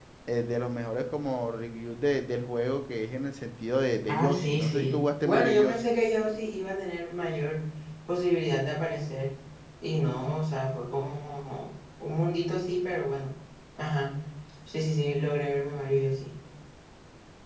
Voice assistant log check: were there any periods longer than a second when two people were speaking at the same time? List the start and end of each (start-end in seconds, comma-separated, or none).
4.1-5.9